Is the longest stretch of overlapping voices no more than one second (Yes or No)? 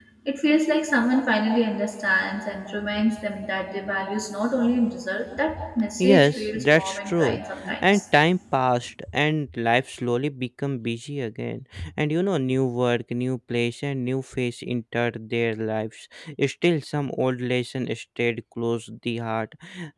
No